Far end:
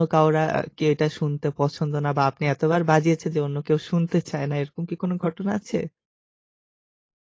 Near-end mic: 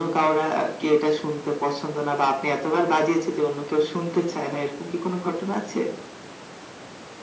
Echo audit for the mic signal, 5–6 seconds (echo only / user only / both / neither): echo only